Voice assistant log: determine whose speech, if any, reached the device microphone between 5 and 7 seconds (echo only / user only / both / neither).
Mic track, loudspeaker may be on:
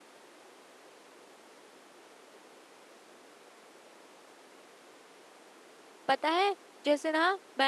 user only